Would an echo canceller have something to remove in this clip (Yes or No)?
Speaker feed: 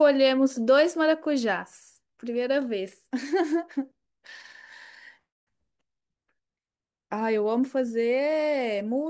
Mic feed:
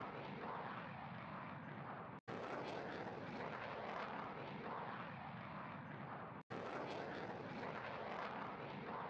No